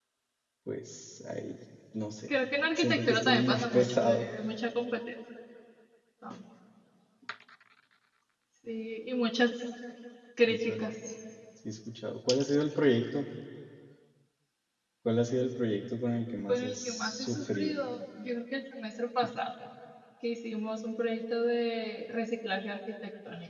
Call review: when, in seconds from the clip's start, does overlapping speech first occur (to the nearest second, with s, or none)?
3 s